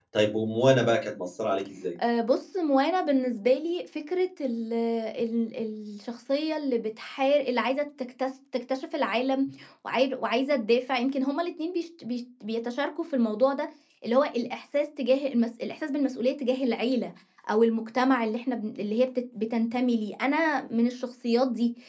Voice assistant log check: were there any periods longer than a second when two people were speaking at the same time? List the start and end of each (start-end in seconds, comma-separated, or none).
none